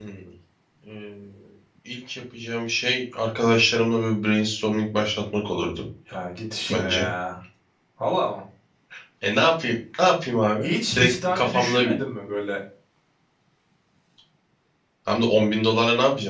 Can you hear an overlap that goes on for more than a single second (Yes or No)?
Yes